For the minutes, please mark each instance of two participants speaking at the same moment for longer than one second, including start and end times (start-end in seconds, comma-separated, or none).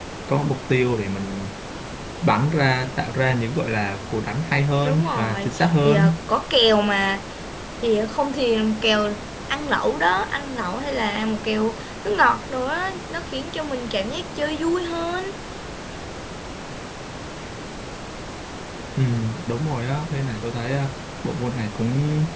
4.8-6.1